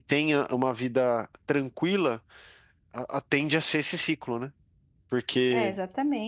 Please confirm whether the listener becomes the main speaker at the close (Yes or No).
Yes